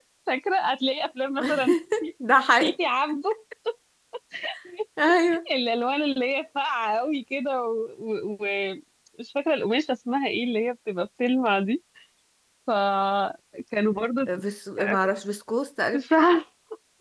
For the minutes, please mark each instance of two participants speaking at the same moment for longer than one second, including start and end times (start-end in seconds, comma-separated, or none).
none